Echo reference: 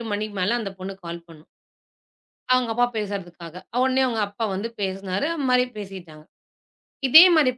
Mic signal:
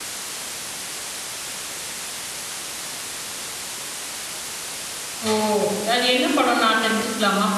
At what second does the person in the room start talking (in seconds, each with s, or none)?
5.3 s